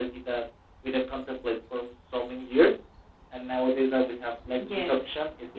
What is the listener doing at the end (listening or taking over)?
taking over